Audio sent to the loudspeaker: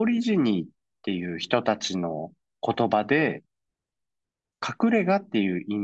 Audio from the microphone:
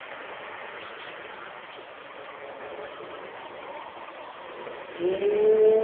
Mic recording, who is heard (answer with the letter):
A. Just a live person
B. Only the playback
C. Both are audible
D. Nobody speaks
A